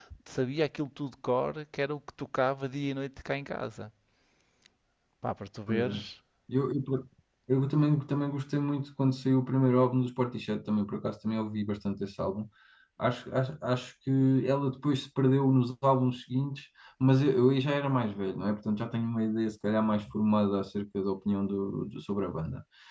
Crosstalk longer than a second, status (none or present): none